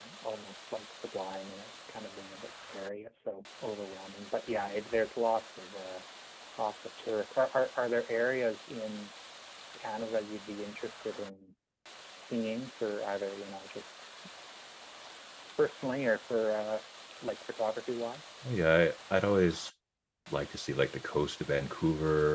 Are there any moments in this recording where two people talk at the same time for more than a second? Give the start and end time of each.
none

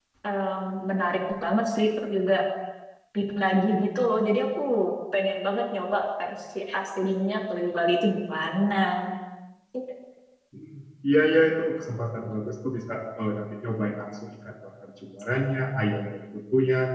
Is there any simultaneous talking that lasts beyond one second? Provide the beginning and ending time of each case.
none

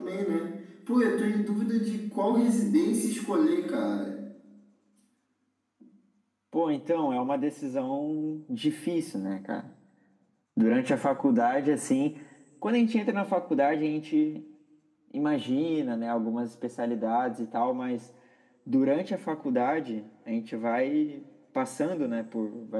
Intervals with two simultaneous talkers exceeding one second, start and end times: none

